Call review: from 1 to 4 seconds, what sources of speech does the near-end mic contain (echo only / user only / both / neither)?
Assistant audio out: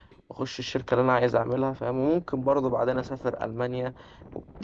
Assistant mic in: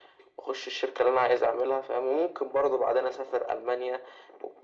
echo only